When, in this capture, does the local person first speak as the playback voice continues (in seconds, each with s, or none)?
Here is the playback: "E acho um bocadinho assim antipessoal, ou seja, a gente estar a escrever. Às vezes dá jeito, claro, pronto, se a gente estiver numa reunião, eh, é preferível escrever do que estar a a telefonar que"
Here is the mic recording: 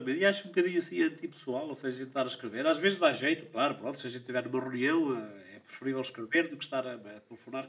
none